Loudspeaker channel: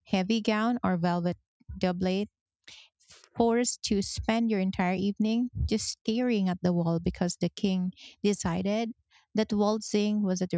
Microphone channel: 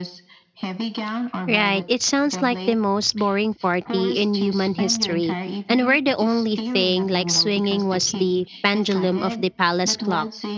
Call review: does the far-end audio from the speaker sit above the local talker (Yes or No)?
No